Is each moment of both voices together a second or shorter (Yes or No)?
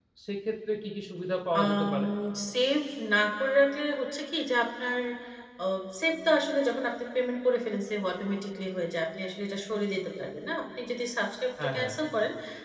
Yes